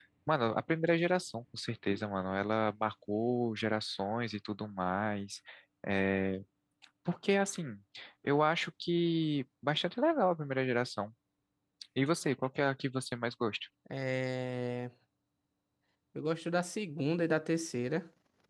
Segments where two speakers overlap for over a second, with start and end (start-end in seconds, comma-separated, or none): none